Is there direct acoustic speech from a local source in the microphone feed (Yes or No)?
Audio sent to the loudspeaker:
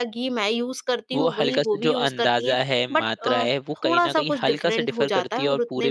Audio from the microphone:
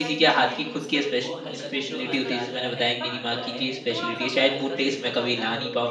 Yes